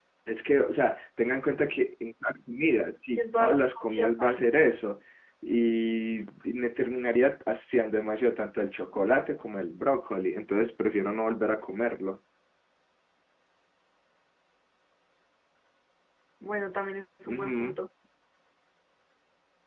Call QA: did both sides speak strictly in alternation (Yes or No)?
No